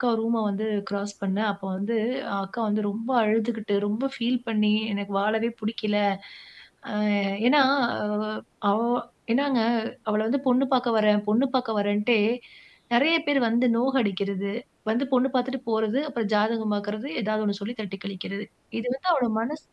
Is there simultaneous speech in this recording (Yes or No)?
No